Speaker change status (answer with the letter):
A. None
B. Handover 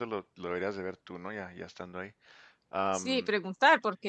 B